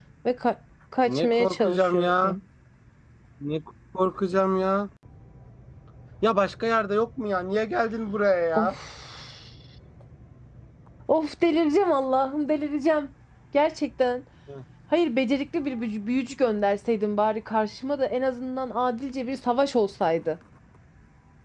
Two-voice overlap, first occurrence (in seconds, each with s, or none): 1.0 s